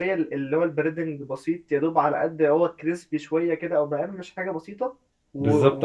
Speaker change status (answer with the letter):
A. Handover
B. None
A